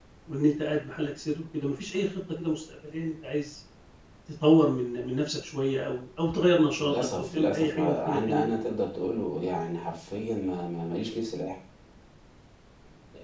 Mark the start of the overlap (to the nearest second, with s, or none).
7 s